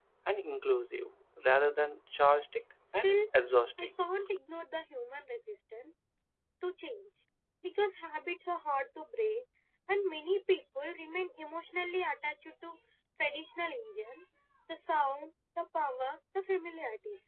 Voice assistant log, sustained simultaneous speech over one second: none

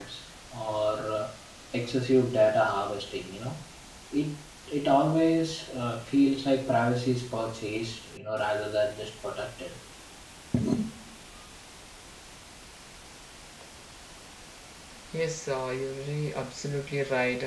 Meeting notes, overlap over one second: none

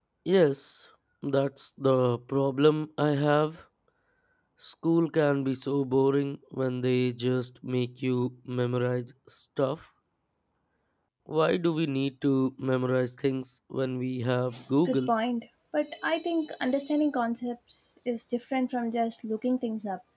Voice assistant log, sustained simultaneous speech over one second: none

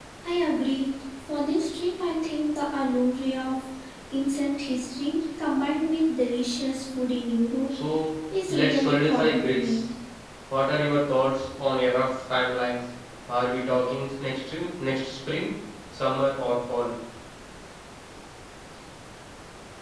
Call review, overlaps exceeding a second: present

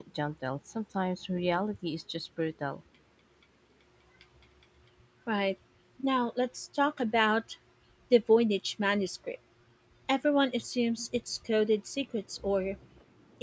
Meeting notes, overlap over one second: none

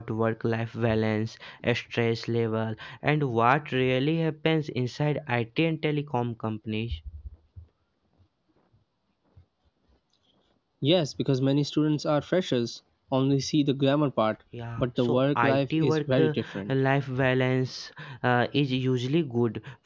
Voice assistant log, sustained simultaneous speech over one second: present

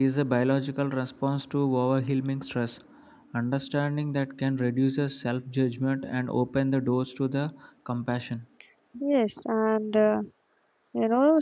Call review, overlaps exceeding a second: none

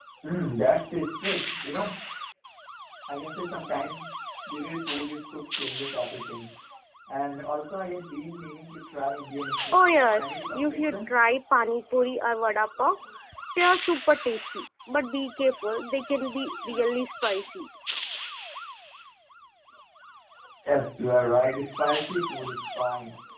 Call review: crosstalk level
present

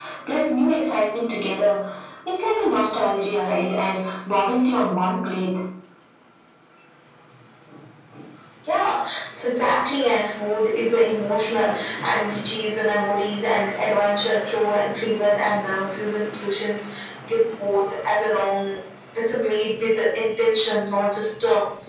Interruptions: none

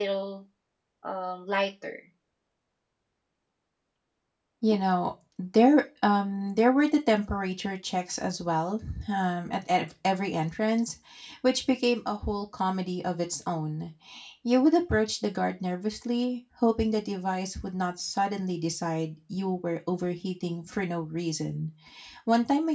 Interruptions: none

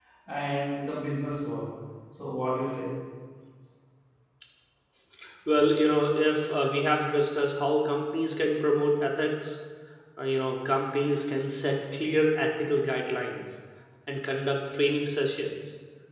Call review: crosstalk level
none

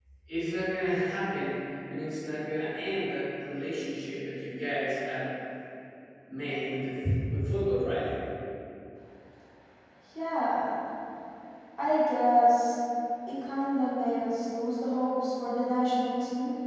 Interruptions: none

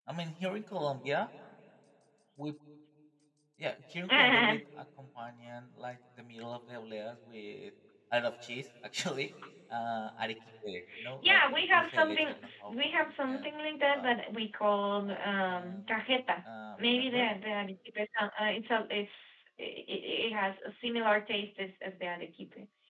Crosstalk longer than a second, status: present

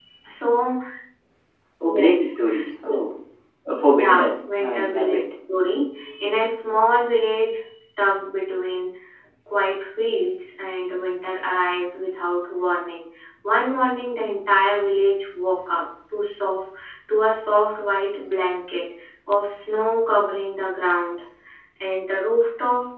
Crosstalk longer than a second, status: present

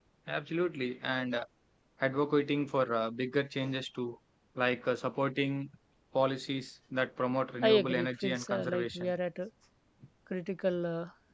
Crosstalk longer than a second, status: present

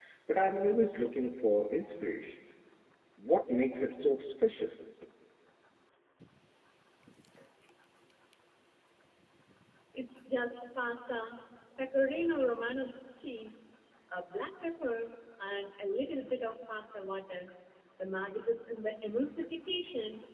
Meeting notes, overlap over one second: none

